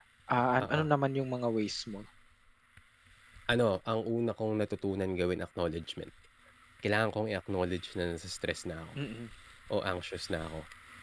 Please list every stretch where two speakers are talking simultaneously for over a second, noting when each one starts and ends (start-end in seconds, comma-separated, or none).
none